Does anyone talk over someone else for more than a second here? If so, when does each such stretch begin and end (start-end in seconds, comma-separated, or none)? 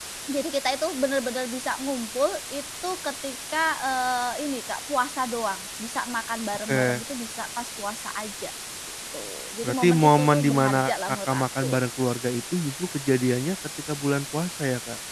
9.6-11.8